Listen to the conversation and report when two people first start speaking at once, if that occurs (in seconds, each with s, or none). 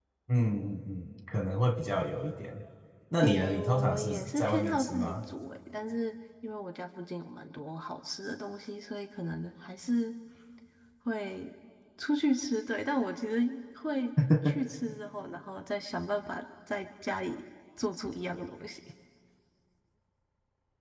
3.2 s